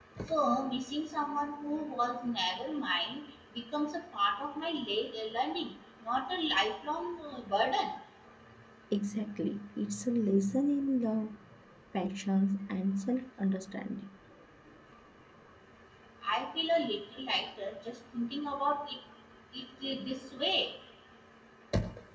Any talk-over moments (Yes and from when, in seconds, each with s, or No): No